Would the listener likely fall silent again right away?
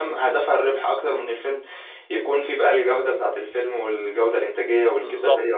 No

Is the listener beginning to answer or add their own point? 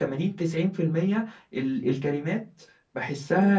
Yes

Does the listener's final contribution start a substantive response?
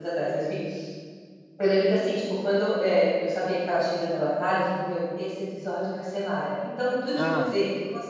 No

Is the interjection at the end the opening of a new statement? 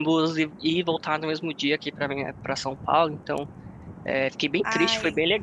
No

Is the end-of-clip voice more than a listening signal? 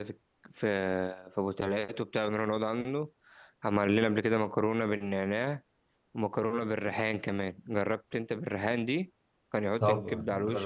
Yes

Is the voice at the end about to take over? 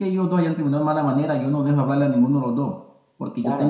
No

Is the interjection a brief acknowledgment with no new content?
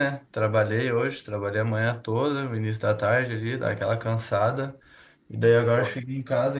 Yes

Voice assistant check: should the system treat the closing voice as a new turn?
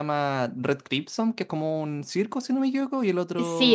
Yes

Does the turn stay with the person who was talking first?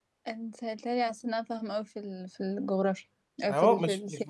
No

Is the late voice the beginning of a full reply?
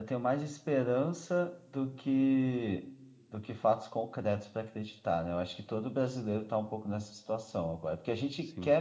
No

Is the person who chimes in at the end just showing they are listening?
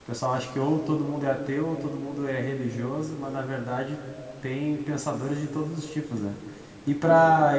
Yes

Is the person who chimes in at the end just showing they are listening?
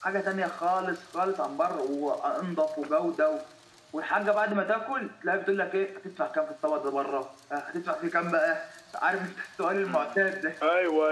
No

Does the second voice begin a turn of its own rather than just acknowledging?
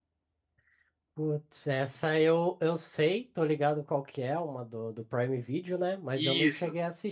No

